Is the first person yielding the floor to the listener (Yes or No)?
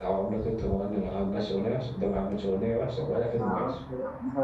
Yes